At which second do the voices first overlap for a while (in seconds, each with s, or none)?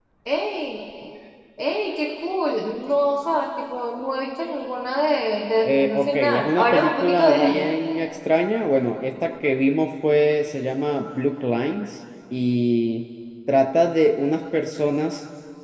5.7 s